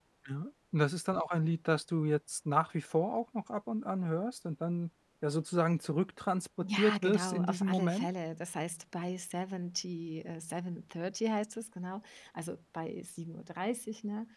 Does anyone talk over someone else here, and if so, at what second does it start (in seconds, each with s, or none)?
6.6 s